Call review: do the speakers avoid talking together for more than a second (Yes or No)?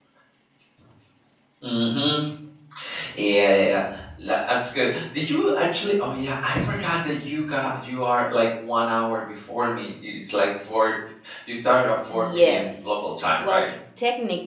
No